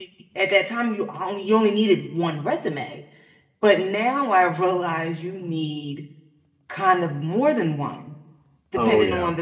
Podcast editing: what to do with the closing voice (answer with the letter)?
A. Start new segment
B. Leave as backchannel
B